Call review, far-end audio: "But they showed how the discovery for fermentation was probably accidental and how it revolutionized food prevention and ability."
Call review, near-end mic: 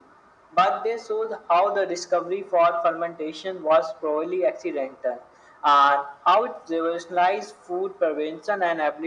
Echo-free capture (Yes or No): No